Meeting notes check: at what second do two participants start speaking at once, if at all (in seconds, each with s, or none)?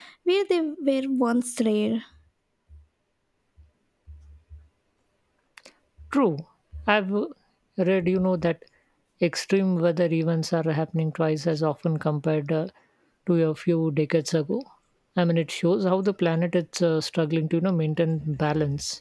none